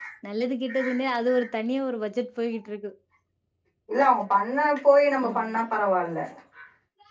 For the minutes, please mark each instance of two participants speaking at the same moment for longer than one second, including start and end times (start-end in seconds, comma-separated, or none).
none